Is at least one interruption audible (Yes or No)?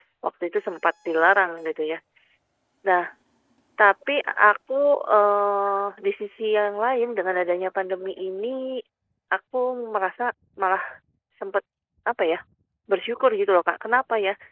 No